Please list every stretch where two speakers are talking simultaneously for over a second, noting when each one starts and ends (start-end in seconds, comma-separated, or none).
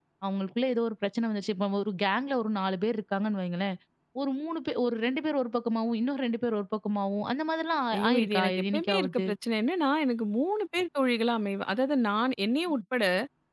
7.9-9.3